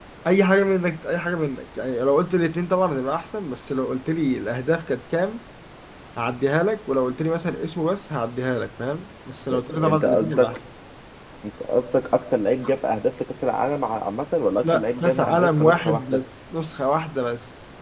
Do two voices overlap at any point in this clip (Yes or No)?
Yes